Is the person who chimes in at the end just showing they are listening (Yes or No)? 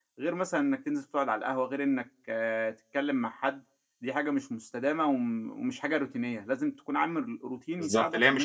No